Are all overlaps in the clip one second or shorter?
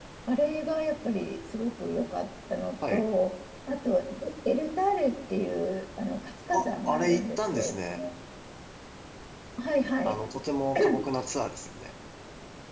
No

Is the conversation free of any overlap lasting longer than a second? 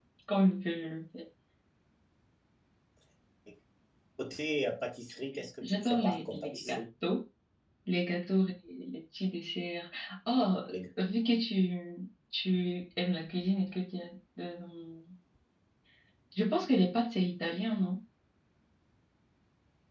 No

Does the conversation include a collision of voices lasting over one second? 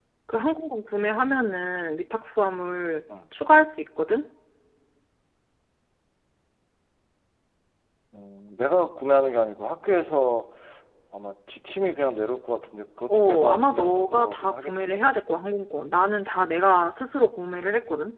Yes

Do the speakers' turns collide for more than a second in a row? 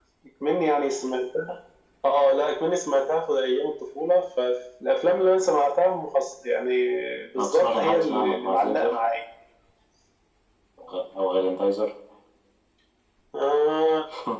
Yes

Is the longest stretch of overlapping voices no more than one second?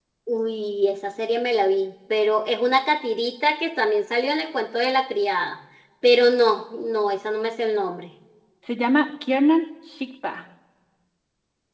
Yes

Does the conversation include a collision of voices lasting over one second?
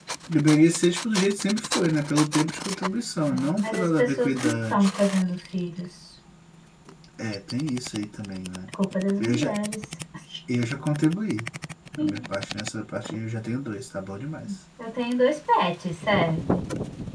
Yes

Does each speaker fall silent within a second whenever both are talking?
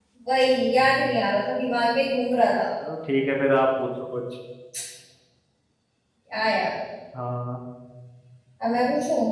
Yes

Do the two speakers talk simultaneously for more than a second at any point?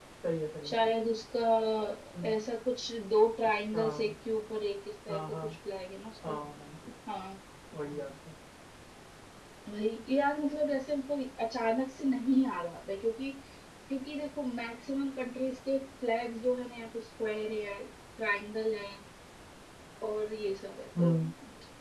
No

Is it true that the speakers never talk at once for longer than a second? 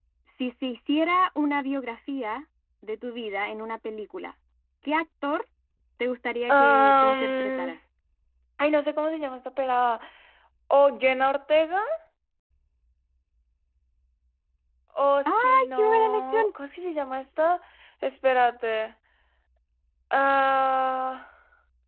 No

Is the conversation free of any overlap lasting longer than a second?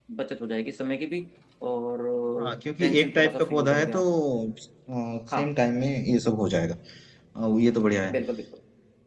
No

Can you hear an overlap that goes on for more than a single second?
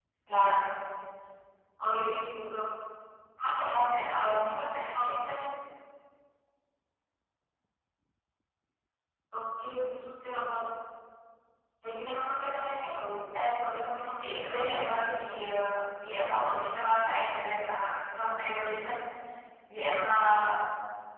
Yes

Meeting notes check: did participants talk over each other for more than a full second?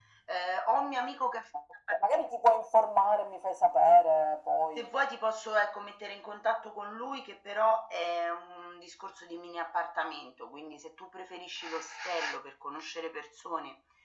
No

